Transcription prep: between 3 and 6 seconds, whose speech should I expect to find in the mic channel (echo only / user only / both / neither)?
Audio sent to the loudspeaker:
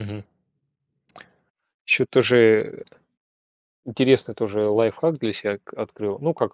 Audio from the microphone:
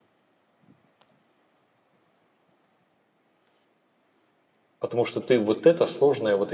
user only